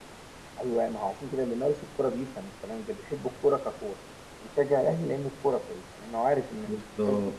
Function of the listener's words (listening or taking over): taking over